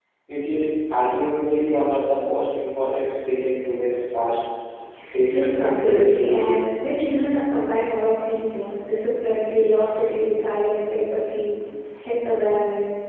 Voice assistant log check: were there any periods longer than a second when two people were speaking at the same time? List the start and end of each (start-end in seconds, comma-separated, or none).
5.3-6.6